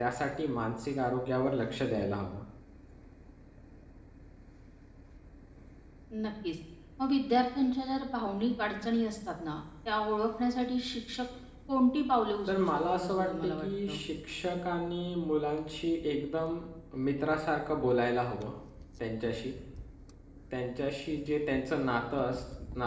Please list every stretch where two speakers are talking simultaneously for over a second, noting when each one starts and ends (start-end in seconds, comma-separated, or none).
12.5-14.0